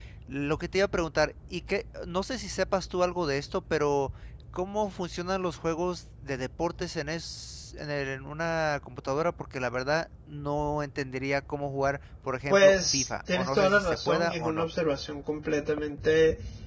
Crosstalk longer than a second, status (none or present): present